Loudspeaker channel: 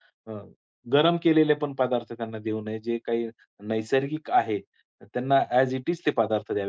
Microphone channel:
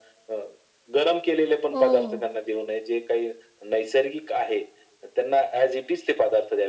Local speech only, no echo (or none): हो,